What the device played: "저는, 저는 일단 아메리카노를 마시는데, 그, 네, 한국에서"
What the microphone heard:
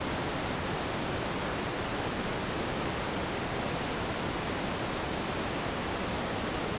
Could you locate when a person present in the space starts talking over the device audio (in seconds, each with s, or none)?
none